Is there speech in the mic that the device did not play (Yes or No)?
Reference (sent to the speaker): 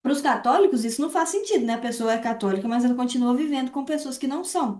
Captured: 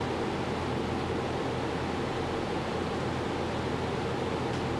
No